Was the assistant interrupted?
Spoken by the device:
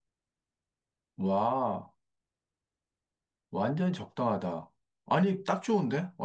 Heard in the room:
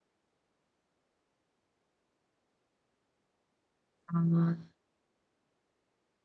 Yes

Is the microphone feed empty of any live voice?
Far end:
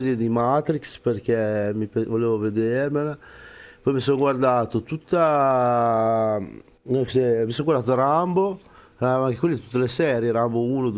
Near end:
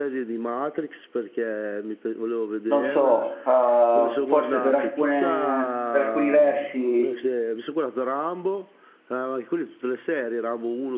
No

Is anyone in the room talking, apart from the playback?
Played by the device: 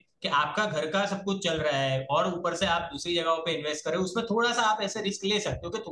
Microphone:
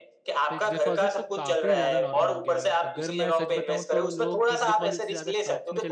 Yes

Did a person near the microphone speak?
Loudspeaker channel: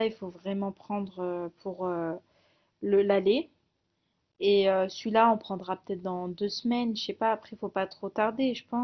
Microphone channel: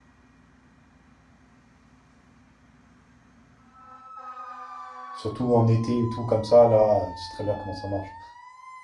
Yes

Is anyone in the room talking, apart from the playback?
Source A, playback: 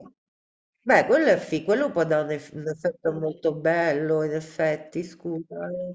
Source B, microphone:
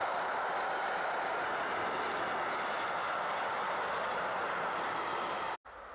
No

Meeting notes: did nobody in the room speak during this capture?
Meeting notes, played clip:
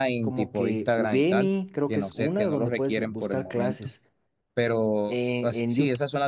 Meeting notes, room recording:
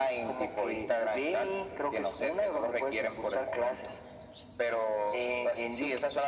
Yes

